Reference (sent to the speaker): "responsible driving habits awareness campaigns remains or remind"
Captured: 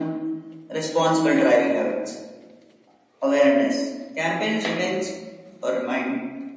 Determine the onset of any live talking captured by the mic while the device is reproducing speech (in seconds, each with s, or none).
none